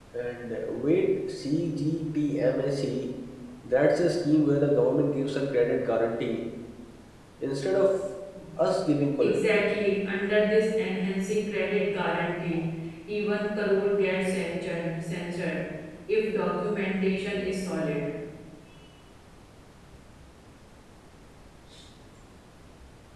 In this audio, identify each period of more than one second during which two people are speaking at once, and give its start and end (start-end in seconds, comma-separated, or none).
none